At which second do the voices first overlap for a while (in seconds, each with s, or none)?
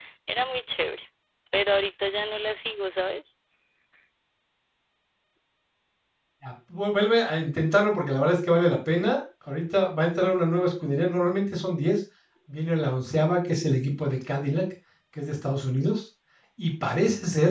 none